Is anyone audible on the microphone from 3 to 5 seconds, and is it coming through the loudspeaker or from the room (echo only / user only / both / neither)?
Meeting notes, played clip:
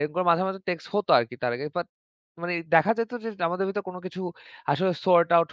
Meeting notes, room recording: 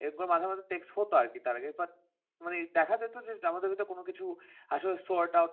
echo only